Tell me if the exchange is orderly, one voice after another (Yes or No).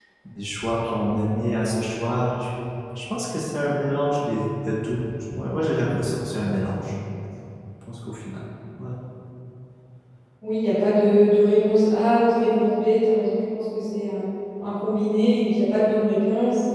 Yes